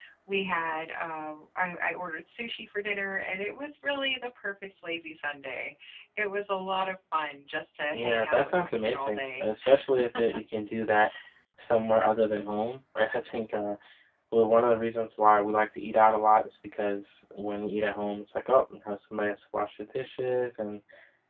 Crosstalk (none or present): present